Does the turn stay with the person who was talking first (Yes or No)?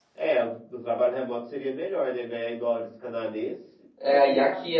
No